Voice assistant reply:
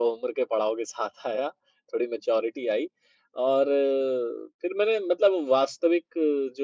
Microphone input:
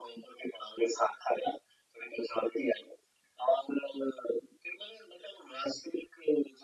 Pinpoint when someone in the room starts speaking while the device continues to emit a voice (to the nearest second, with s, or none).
none